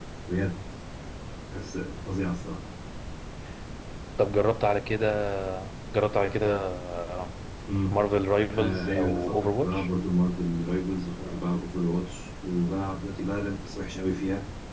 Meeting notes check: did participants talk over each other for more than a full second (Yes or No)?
Yes